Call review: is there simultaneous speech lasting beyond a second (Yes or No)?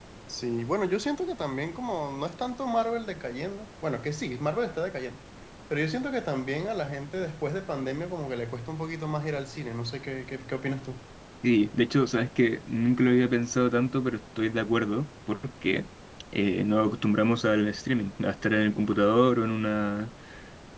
No